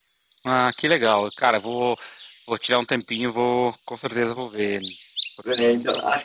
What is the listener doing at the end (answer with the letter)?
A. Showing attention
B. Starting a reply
B